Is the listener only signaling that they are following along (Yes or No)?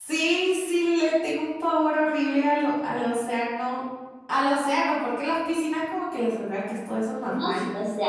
No